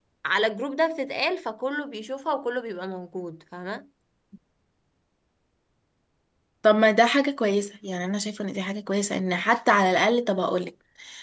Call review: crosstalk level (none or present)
none